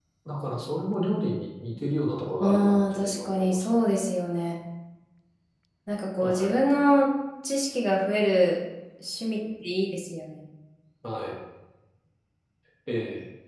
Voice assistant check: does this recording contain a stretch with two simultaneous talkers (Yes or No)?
Yes